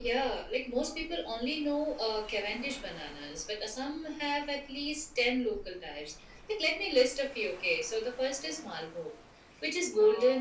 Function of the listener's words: listening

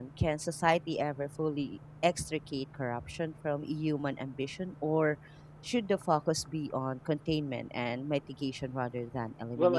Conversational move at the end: taking over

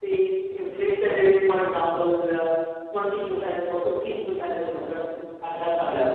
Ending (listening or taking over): listening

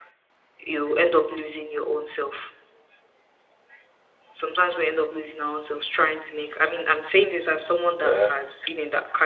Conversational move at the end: listening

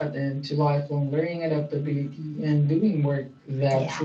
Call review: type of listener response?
taking over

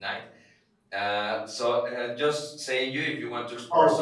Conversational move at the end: taking over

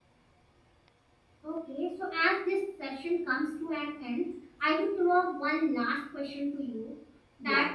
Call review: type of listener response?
listening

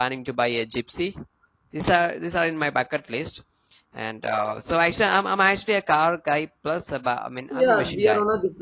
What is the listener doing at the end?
taking over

